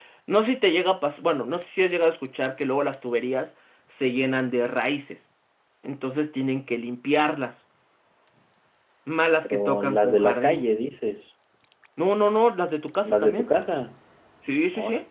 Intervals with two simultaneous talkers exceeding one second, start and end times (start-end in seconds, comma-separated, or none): 9.4-10.7